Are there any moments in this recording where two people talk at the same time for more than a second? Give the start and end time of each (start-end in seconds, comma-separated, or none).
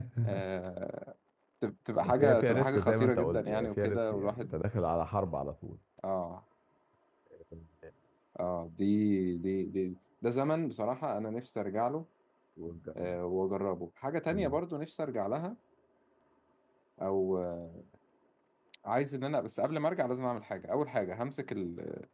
2.0-4.5